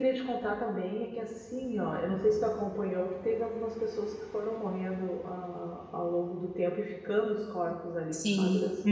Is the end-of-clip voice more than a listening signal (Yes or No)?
Yes